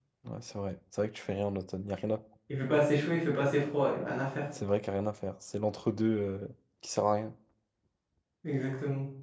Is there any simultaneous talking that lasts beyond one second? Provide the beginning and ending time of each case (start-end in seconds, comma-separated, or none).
none